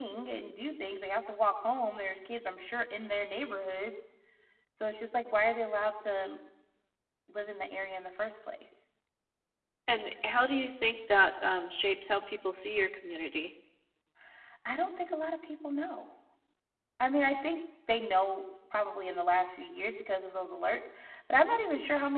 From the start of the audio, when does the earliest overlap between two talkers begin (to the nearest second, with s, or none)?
none